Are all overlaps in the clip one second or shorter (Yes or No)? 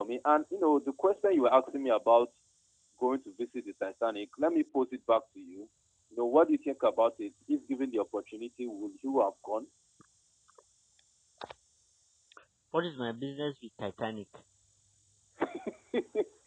Yes